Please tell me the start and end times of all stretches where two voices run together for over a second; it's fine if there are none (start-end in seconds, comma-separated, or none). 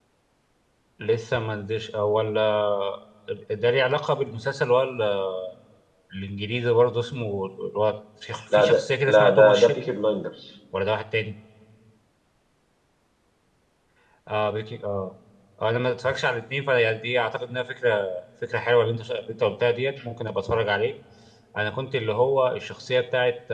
8.5-9.9